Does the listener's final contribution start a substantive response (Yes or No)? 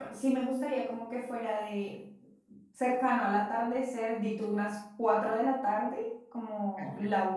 No